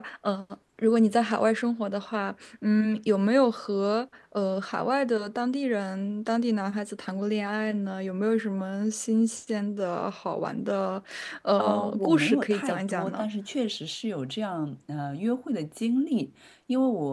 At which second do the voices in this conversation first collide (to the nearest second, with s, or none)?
12 s